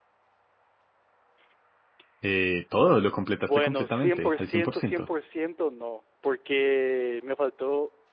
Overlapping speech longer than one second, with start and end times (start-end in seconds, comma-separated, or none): 3.4-5.1